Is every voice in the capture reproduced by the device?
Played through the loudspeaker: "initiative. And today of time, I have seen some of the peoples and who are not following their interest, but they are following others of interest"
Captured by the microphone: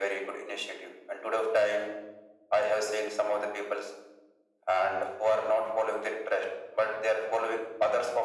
Yes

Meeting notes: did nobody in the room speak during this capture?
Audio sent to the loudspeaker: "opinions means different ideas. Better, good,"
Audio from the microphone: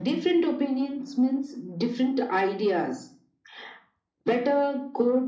Yes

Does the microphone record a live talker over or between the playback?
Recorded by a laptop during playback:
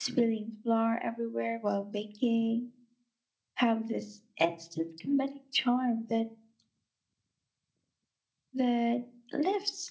Yes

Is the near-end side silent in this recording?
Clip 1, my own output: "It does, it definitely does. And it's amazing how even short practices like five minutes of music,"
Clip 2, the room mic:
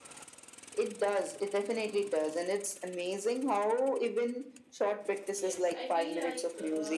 No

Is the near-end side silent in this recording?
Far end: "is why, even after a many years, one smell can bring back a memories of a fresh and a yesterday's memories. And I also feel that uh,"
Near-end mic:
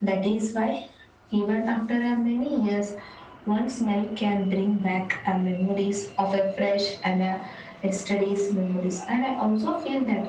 Yes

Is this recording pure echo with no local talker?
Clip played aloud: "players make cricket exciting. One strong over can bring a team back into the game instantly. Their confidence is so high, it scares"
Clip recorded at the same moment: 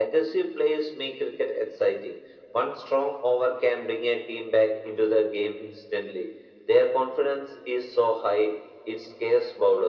Yes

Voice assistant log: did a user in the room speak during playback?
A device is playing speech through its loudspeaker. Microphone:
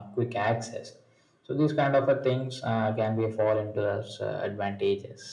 No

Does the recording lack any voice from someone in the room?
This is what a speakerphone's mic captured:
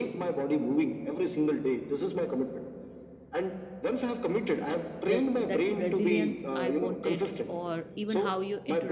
No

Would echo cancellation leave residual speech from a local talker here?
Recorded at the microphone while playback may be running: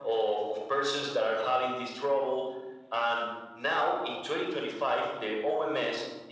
No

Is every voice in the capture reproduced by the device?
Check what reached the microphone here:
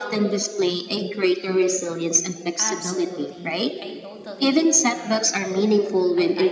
No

